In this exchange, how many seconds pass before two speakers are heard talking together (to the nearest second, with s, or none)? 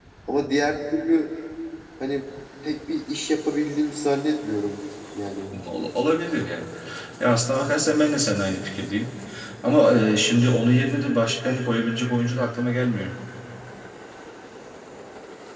none